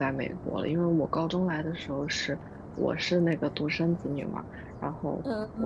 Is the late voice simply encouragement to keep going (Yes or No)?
Yes